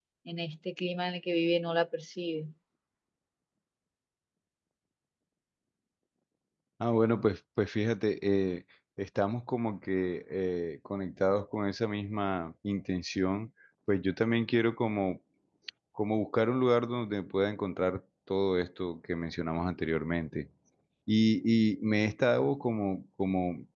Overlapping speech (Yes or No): No